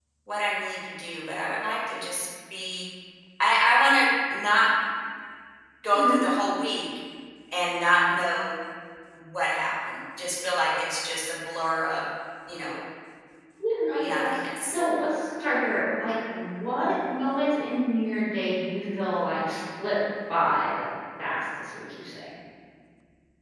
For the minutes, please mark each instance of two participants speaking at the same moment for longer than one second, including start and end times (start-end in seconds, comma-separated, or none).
none